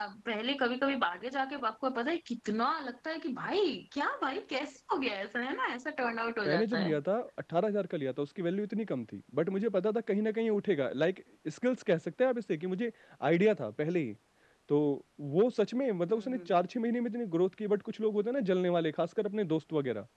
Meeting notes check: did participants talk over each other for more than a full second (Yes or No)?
No